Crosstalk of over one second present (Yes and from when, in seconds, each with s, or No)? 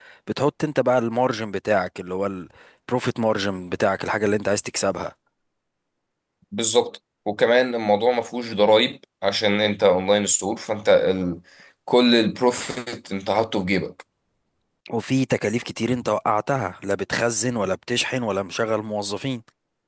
No